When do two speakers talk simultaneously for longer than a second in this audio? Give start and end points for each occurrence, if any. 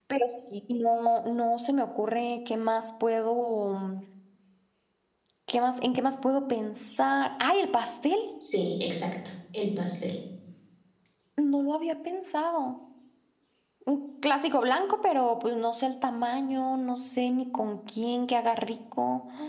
none

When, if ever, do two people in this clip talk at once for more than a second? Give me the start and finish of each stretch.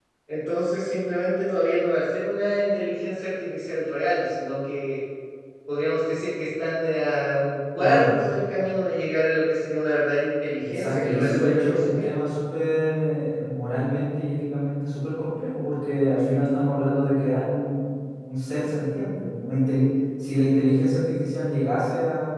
10.7-12.1

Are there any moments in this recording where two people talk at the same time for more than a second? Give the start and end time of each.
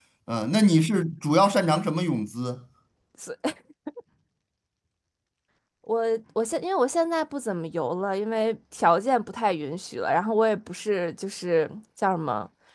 none

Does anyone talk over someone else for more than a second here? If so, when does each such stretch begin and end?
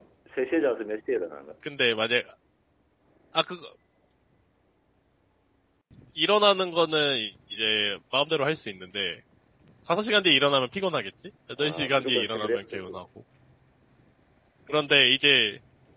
11.6-13.0

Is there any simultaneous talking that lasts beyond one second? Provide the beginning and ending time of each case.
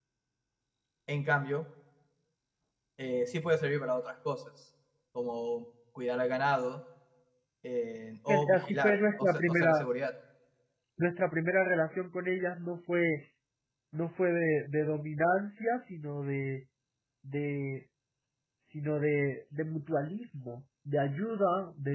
8.3-9.9

